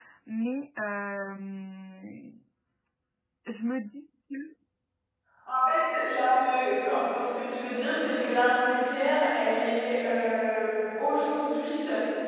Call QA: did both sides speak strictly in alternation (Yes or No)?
Yes